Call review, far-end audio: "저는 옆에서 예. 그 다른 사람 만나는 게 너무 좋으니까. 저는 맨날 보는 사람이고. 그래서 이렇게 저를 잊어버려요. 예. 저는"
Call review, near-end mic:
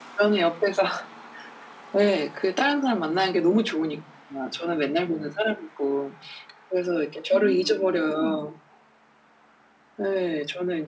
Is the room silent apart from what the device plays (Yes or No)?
No